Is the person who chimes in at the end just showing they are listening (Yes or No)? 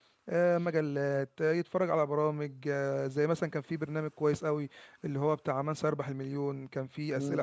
No